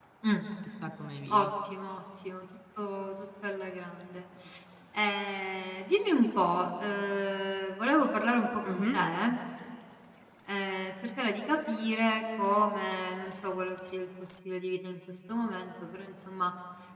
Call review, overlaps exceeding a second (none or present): none